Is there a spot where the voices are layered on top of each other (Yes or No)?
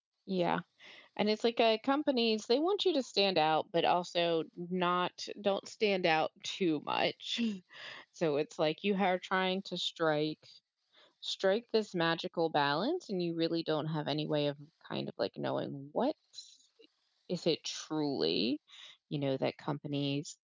No